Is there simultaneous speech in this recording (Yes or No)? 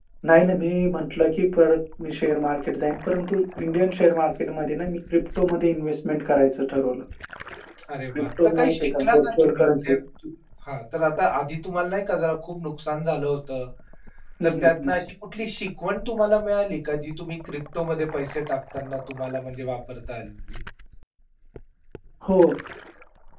Yes